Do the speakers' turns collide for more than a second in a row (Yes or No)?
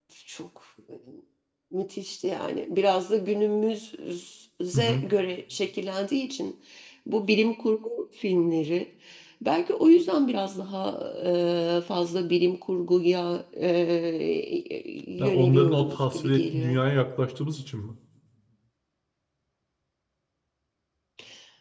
Yes